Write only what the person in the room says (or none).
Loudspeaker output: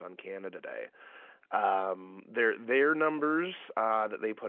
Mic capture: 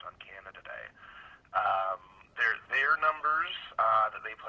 none